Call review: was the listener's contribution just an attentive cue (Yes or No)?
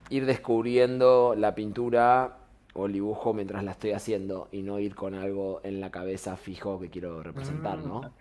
No